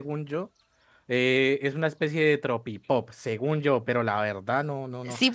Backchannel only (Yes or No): No